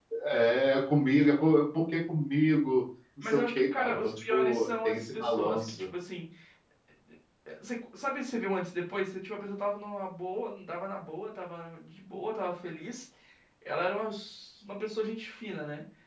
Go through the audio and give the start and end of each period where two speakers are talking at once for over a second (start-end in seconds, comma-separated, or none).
3.2-5.8